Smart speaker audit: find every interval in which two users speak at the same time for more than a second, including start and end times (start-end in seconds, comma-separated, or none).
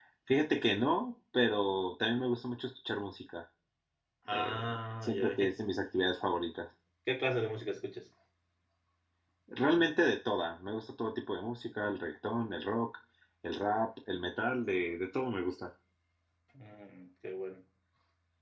4.3-5.5